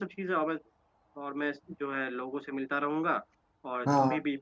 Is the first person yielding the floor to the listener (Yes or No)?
No